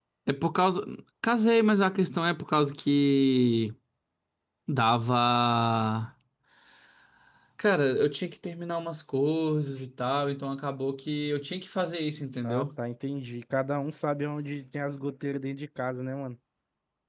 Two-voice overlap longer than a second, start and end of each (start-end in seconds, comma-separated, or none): none